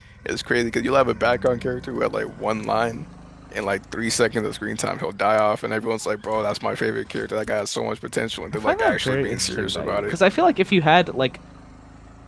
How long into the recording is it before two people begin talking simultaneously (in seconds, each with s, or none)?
8.7 s